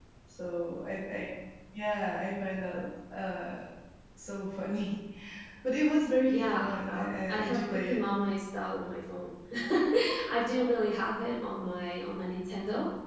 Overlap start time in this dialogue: 6.2 s

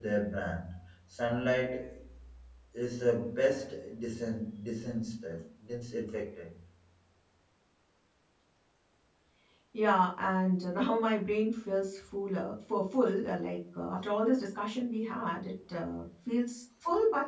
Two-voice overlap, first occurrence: none

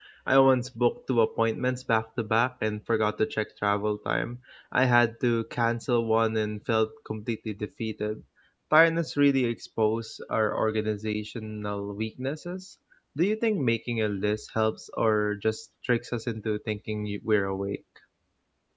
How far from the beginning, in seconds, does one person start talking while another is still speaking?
none

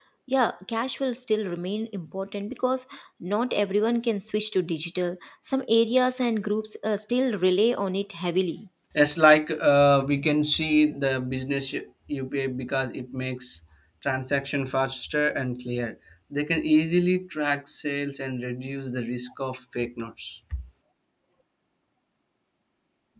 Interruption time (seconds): none

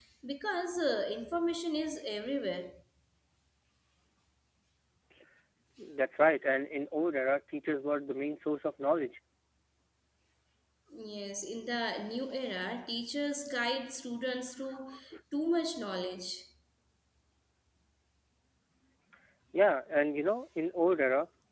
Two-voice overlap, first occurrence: none

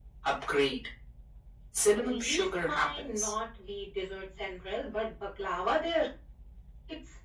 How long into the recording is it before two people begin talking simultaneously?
2.0 s

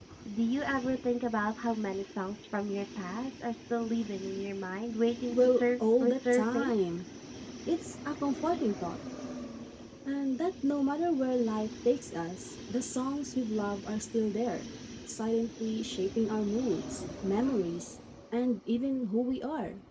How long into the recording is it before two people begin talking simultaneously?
5.3 s

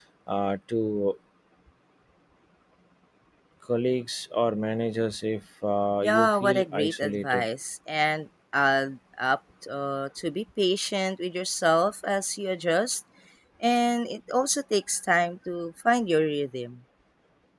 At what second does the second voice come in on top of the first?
6.0 s

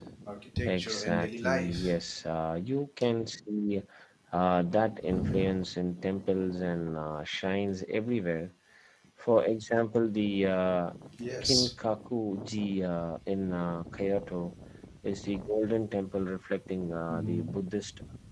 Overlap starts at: 0.7 s

